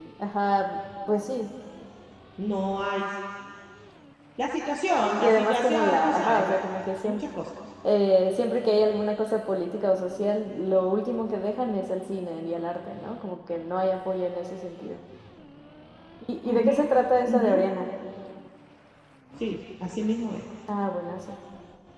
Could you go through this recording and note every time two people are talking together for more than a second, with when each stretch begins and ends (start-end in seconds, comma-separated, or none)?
5.2-6.5